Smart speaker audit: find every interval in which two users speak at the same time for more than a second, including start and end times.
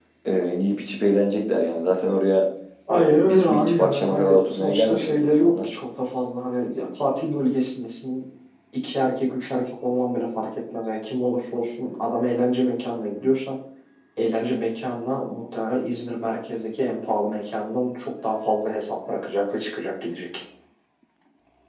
2.9-5.7

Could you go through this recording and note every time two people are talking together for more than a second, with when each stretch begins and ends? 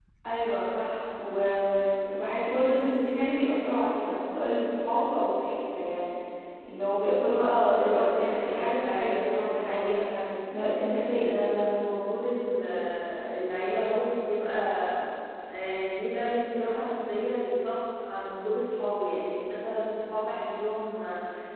7.8-9.9

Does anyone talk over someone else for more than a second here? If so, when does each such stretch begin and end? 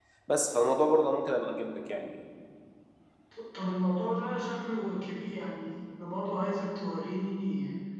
none

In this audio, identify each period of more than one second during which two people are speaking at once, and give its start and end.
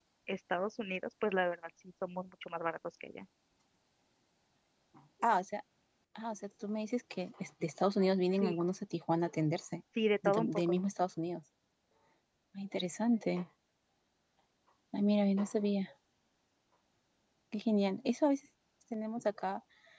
none

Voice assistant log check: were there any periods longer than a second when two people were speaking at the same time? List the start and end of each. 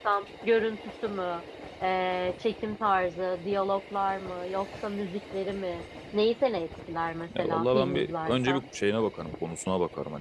7.4-8.7

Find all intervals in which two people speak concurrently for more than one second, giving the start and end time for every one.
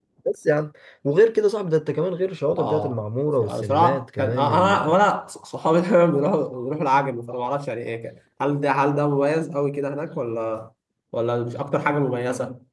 3.6-5.0

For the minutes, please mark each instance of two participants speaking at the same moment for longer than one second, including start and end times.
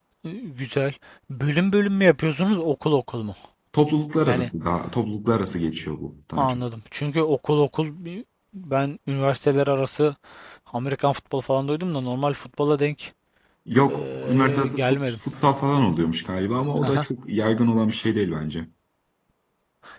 13.9-15.2

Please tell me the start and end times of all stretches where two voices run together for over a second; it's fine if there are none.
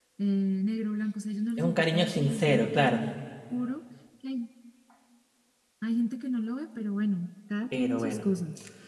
1.6-3.0

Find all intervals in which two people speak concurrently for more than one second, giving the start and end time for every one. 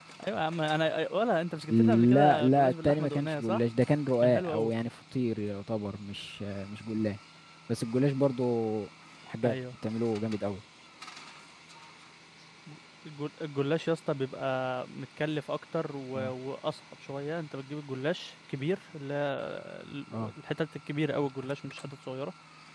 1.7-3.6

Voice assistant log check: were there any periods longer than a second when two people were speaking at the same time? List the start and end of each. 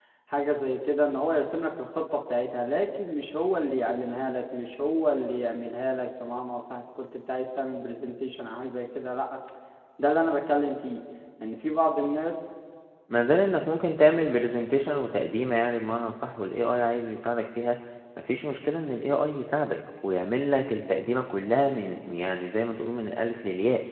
none

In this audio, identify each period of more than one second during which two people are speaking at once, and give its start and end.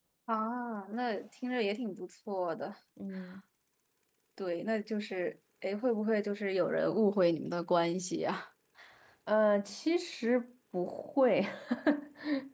none

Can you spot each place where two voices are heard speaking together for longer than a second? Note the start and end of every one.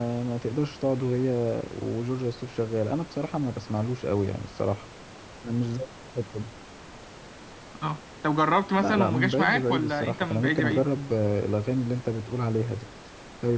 8.8-10.8

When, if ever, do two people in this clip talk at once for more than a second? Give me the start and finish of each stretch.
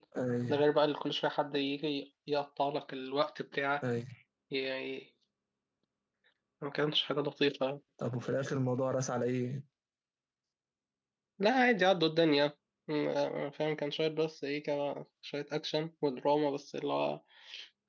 none

